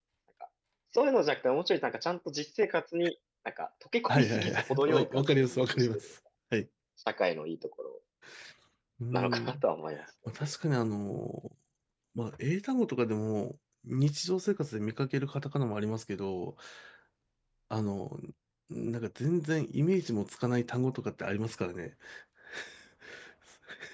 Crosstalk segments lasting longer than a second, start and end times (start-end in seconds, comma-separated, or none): 4.1-6.0